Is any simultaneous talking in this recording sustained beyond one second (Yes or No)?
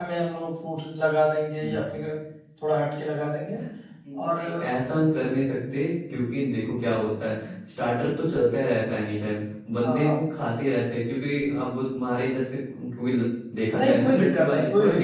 Yes